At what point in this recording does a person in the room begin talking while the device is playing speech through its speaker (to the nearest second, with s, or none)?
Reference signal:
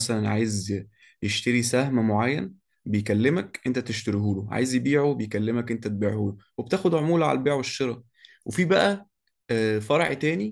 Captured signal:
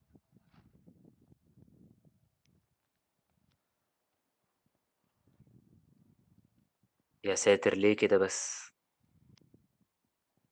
7 s